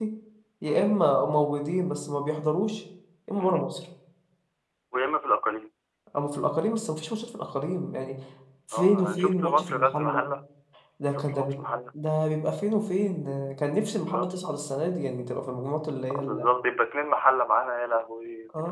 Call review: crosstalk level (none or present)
present